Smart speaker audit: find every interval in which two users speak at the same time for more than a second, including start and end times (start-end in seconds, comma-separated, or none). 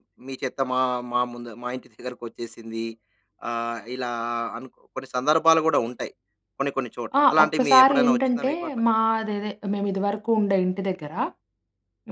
7.2-8.7